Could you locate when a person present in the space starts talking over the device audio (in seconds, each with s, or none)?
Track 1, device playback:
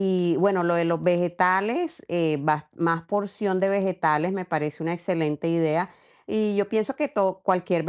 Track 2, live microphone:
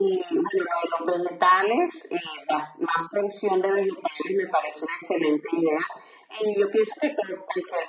none